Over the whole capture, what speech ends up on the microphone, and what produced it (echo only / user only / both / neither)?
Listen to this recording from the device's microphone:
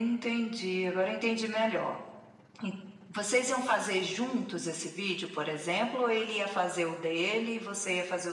echo only